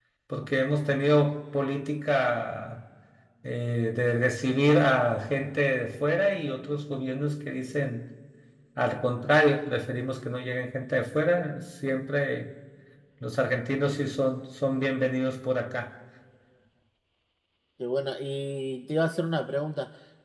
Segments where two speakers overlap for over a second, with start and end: none

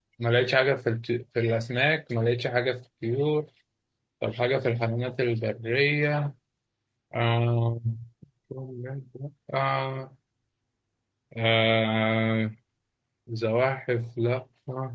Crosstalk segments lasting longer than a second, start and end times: none

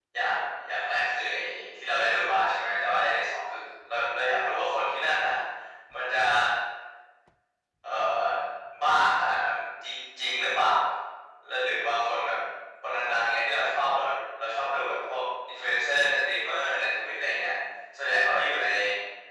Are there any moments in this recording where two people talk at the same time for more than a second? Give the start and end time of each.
none

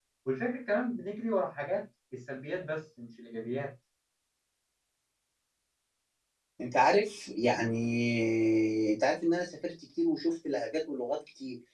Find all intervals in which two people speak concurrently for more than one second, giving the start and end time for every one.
none

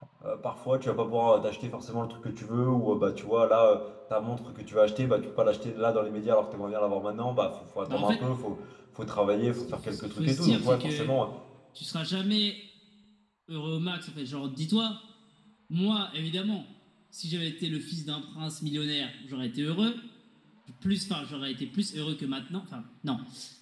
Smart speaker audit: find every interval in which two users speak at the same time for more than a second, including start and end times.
9.5-11.1

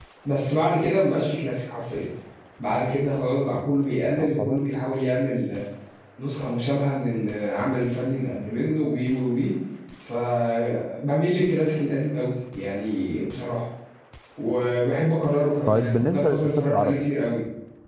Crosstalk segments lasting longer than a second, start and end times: 15.7-17.0

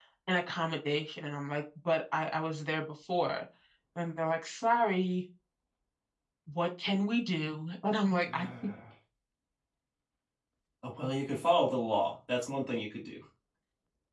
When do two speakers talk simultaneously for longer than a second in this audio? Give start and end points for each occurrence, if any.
none

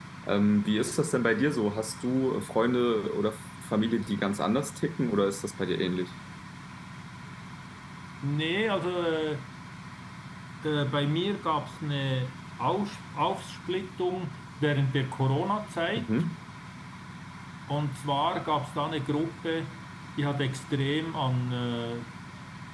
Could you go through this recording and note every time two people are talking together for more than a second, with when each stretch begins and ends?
none

